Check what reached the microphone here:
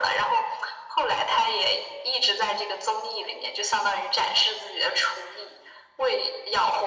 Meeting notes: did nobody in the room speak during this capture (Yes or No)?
Yes